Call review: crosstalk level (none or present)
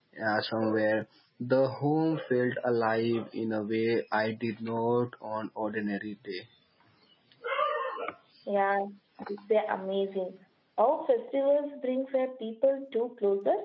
none